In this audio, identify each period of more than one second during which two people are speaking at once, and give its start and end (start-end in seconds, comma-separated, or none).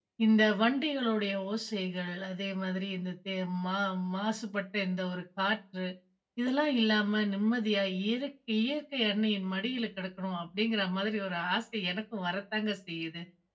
none